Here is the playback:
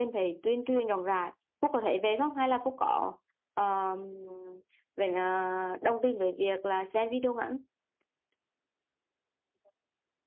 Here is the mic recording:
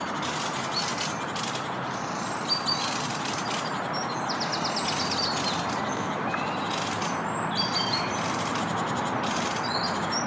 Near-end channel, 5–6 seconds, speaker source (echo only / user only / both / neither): neither